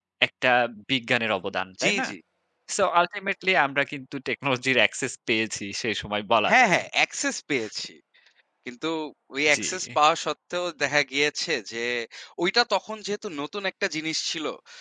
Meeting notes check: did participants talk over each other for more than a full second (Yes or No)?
No